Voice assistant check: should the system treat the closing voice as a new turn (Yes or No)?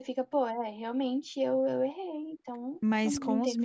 Yes